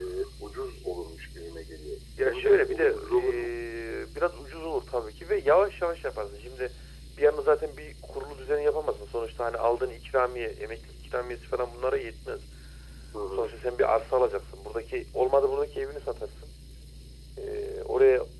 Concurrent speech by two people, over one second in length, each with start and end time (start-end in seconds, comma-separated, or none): 2.2-3.6